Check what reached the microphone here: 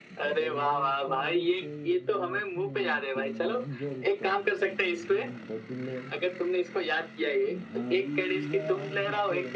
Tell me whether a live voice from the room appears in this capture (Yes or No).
Yes